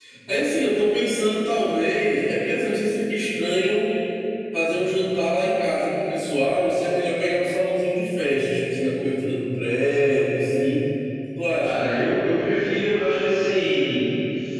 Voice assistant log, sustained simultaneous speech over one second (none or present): none